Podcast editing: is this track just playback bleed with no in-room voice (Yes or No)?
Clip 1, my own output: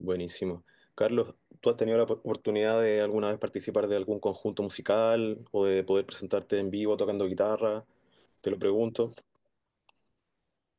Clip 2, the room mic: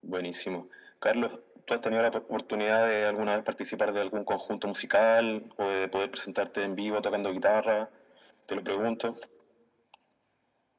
Yes